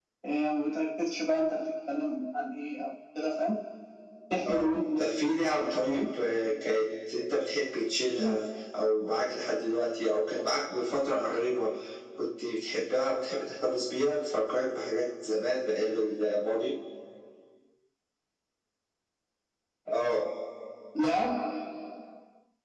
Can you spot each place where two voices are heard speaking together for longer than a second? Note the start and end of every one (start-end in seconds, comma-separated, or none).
4.5-6.1